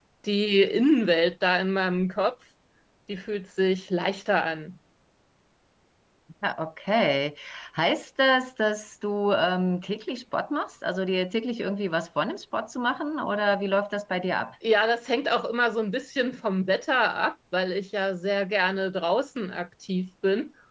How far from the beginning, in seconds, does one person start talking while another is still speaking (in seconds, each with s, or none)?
none